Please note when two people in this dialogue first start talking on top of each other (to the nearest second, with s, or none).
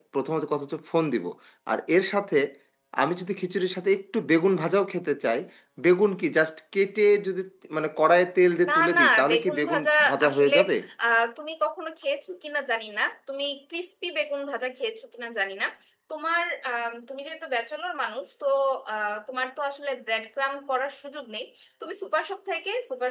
9 s